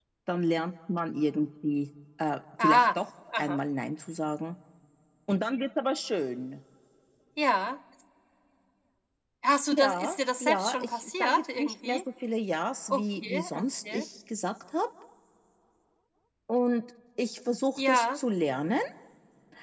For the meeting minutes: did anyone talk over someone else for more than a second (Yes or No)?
Yes